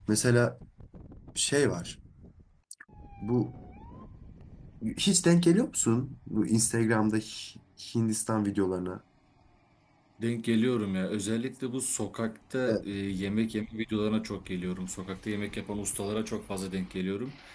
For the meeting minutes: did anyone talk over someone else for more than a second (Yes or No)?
No